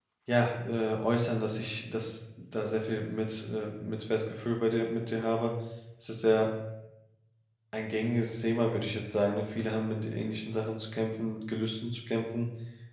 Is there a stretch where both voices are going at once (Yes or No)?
No